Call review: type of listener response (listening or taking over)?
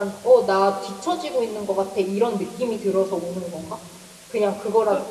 taking over